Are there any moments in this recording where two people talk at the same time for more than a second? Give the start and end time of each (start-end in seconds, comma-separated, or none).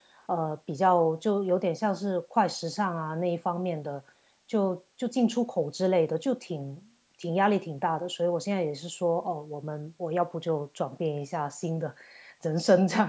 none